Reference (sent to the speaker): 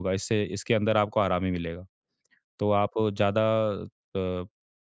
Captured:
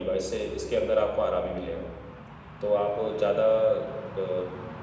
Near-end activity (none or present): none